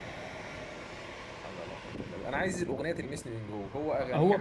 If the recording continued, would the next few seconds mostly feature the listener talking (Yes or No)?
Yes